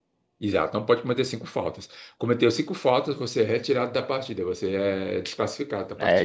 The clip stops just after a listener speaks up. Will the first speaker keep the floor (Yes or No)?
No